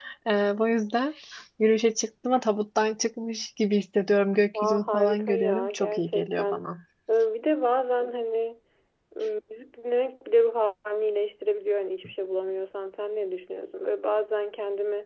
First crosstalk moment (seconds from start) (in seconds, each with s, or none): 4.5 s